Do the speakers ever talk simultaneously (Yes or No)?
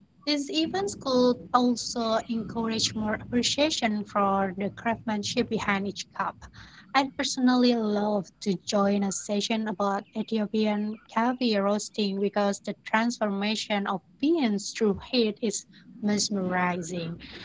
No